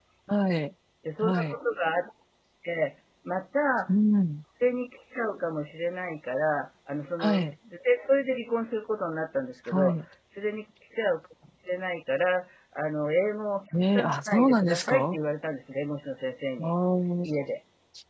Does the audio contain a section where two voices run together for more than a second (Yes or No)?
Yes